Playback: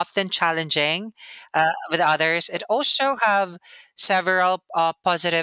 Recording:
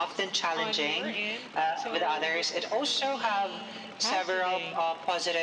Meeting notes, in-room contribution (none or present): present